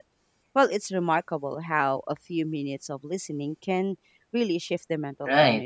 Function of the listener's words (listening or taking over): taking over